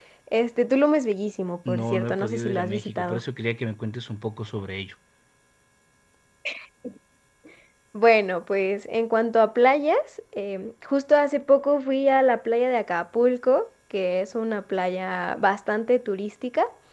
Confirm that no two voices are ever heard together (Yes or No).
No